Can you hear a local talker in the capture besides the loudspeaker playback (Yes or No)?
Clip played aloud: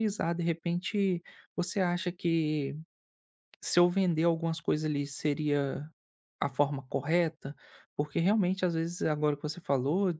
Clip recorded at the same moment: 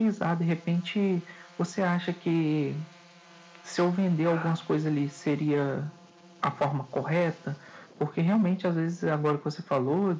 Yes